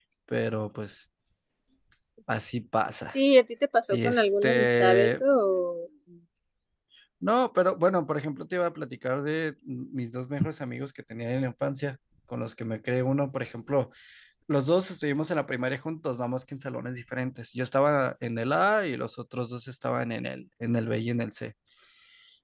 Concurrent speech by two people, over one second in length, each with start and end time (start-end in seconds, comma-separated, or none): 3.9-5.2